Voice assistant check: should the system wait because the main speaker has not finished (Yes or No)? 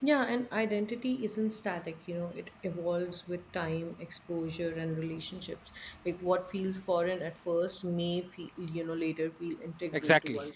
No